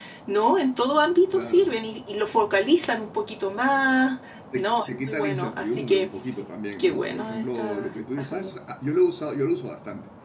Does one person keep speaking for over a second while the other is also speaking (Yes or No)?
Yes